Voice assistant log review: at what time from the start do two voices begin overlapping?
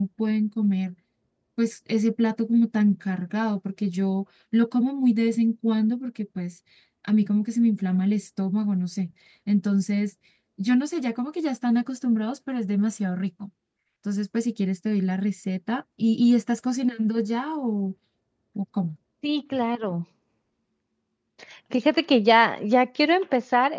none

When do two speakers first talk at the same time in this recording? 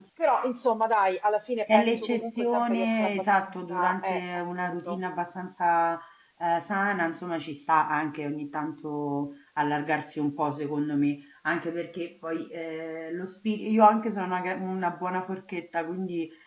1.7 s

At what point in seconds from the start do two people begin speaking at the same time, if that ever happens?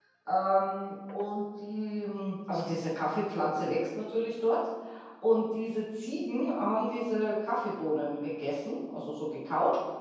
none

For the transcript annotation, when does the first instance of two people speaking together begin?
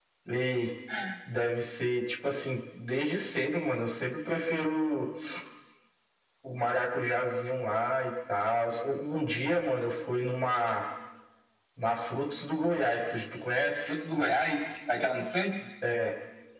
none

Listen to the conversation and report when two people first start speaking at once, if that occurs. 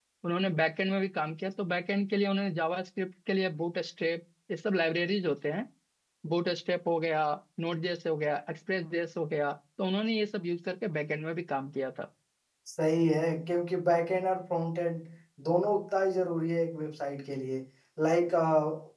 none

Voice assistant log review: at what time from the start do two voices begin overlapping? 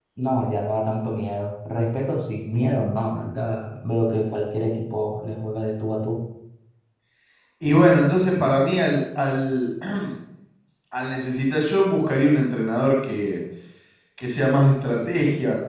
none

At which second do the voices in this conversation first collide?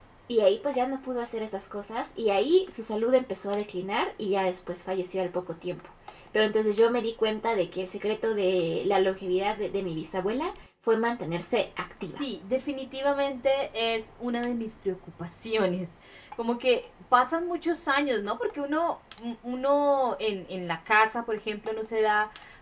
none

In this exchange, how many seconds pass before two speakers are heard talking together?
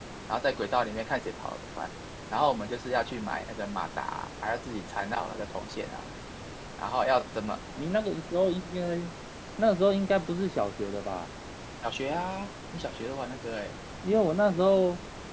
none

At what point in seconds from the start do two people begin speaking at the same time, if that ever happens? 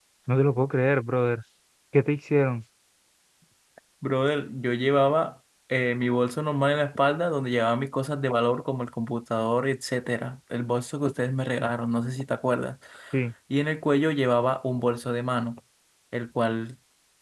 none

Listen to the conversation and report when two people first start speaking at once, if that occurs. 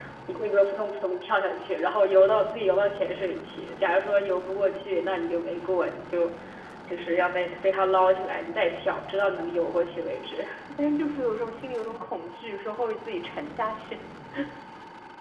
none

